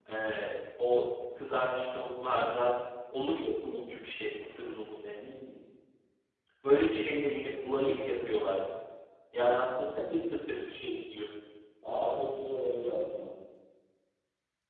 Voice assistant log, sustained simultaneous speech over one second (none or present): none